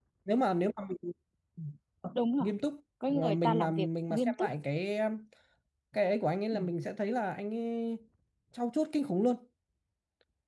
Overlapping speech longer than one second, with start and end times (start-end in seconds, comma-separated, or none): 3.1-4.5